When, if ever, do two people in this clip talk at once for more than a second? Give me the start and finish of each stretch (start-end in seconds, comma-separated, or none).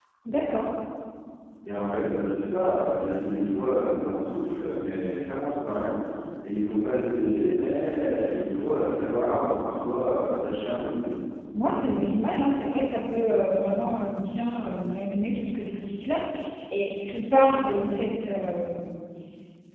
none